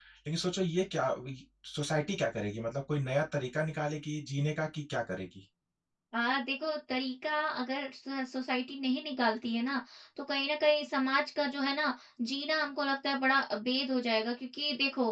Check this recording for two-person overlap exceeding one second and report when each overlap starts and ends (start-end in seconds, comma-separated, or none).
none